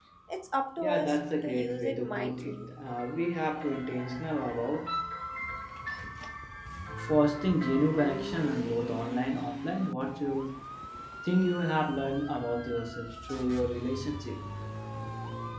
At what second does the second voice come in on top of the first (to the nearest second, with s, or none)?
1 s